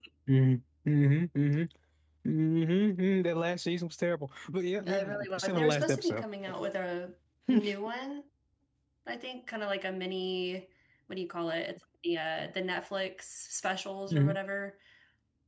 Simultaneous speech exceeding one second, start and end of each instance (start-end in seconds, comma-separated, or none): 4.8-6.2